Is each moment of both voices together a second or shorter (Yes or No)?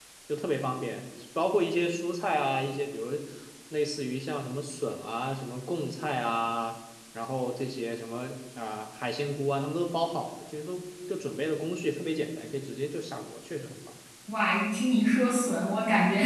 Yes